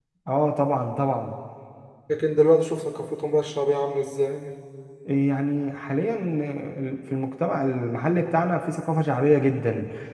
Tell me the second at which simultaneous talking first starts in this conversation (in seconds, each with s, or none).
none